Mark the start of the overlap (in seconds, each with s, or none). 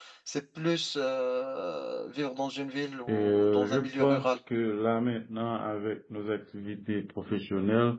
3.1 s